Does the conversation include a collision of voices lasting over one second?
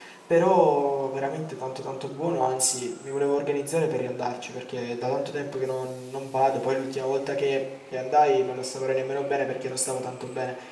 No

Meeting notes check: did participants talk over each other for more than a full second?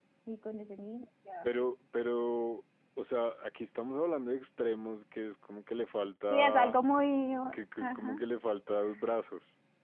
No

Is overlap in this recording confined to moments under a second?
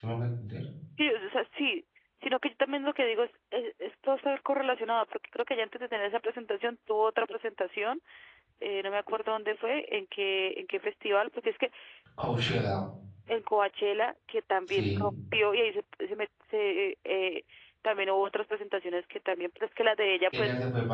Yes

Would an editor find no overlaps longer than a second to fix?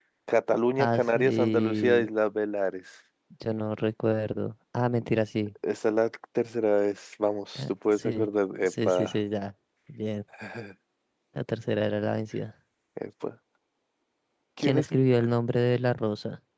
No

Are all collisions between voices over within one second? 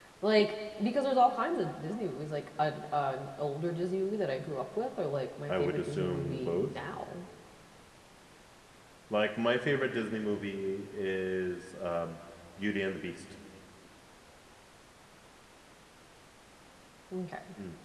No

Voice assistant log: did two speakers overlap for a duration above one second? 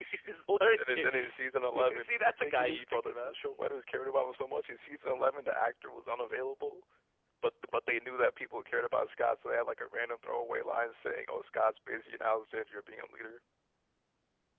Yes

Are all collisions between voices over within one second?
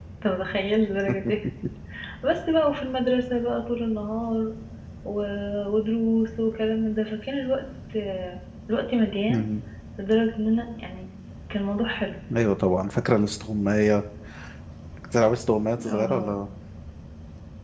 Yes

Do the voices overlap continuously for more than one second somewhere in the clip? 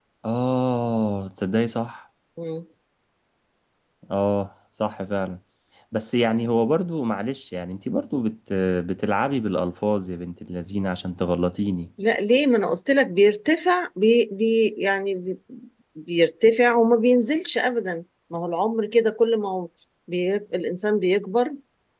No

